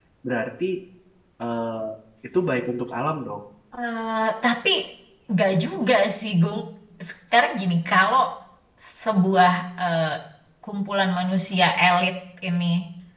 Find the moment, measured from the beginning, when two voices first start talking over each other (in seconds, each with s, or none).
none